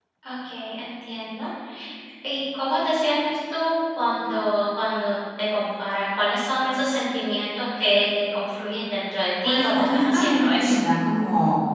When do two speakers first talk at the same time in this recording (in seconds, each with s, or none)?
9.4 s